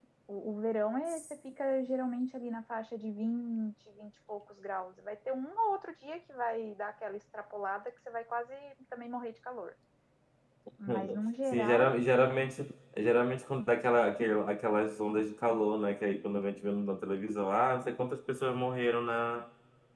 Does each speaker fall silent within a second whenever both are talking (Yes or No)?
Yes